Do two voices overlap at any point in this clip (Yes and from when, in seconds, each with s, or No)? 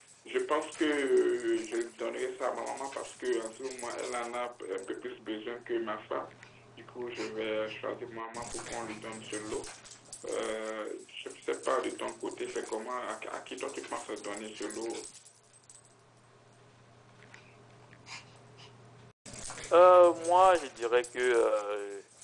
No